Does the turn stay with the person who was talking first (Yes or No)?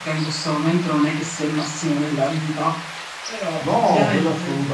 No